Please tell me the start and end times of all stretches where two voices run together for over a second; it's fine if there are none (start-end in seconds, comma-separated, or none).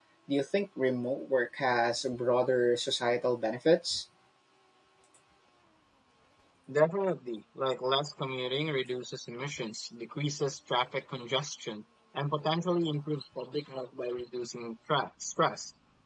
none